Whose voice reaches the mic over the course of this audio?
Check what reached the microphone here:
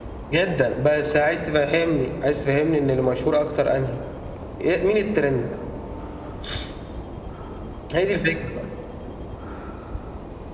echo only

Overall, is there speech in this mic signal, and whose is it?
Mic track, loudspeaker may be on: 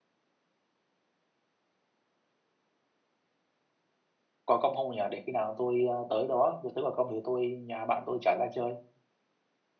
user only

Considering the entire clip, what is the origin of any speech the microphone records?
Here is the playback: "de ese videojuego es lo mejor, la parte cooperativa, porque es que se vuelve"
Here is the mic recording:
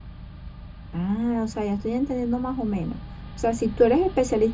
user only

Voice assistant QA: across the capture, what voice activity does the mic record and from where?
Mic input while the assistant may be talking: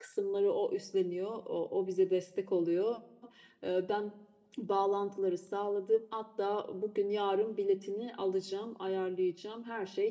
user only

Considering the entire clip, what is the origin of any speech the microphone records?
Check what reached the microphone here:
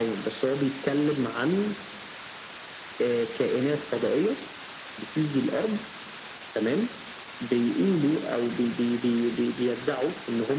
echo only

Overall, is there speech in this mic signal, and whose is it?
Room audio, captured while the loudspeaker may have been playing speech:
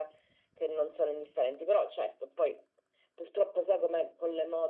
echo only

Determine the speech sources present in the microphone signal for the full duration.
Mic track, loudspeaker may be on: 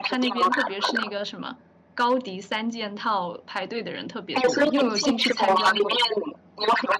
both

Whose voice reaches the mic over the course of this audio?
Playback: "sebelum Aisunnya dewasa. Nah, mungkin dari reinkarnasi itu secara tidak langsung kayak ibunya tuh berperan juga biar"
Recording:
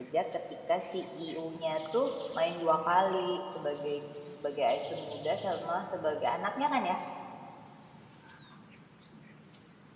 user only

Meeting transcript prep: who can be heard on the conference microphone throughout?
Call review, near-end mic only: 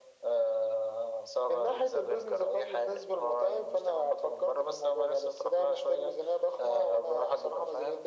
echo only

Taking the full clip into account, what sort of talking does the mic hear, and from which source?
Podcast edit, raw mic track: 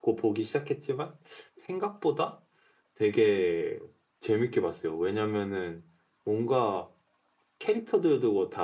user only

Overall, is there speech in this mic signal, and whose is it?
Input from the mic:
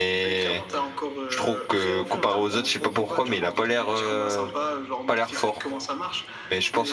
both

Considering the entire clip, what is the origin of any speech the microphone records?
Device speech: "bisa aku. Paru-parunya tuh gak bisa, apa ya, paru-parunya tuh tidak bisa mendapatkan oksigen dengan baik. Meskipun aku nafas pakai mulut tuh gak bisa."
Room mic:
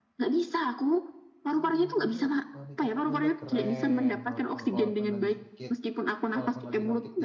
both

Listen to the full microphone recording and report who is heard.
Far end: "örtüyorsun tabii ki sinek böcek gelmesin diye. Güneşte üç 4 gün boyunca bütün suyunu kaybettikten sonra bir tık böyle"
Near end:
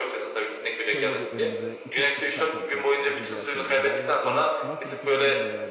both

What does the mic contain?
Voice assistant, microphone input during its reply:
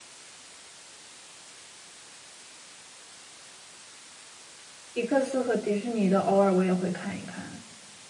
user only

